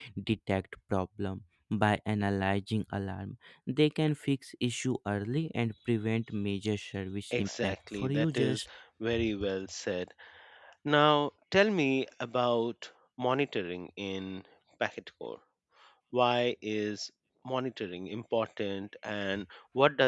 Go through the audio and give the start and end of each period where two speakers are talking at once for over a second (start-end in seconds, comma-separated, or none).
7.3-8.6